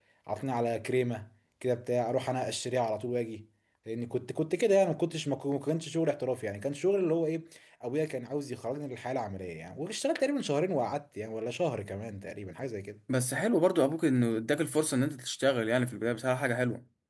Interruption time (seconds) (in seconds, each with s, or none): none